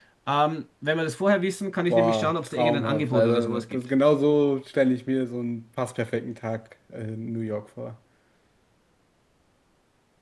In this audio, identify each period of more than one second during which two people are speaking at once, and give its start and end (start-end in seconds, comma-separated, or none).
1.9-3.8